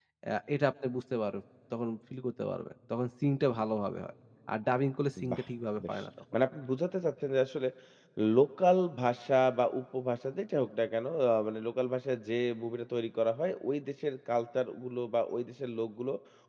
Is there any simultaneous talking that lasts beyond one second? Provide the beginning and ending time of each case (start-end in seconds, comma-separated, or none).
none